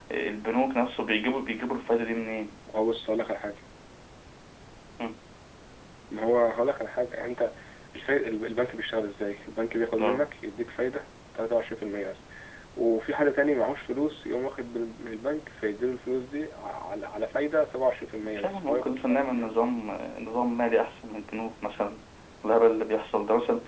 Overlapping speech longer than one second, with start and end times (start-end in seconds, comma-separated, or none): 18.3-19.5